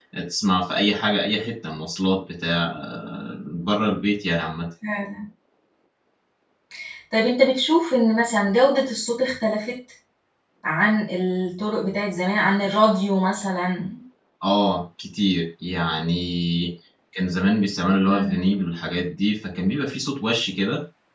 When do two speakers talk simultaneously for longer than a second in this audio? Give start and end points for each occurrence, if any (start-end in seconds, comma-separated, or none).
none